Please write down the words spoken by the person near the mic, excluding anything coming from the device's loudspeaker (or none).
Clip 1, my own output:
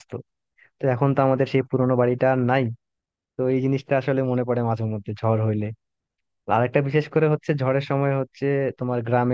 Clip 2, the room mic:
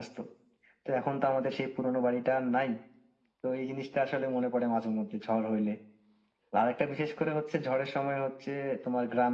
none